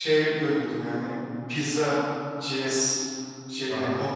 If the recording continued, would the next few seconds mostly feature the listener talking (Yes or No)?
Yes